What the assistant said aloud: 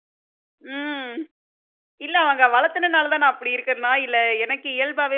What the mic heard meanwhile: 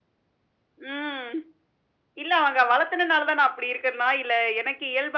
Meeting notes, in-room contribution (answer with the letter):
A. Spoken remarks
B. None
B